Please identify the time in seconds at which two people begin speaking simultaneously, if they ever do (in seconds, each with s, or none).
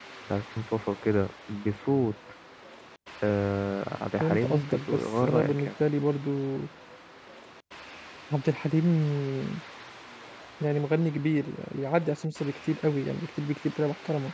4.2 s